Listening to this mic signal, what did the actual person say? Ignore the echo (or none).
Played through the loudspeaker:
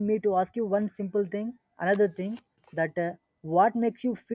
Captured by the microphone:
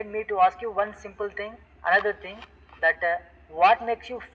none